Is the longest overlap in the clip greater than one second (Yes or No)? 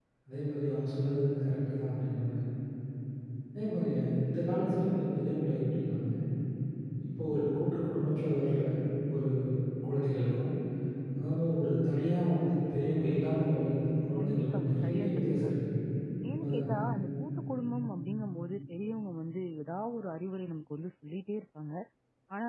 Yes